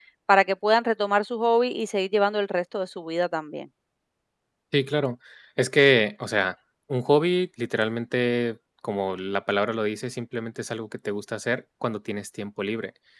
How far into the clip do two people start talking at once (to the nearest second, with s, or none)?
none